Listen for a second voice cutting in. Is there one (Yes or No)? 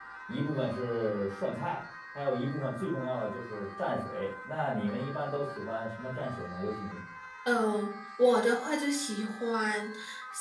No